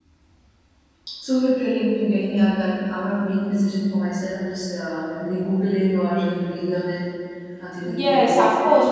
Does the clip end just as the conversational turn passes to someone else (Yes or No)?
Yes